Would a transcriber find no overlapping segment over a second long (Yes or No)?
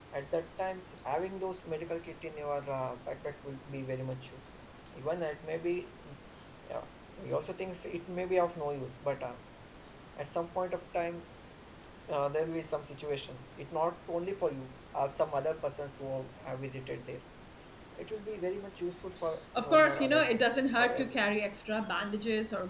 No